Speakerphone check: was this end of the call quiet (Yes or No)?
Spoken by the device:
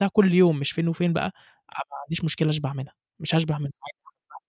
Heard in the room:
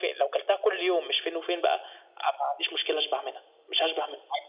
Yes